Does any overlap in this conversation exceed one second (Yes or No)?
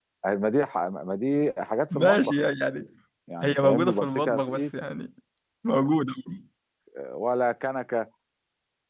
Yes